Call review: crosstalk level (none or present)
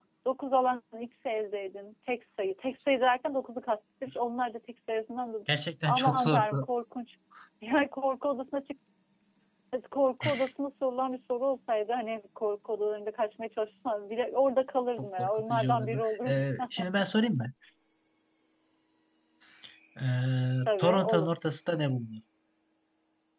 present